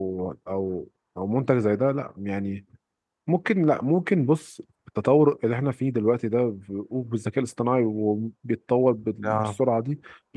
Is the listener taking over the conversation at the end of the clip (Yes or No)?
No